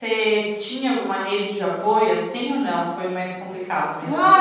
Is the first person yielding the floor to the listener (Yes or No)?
Yes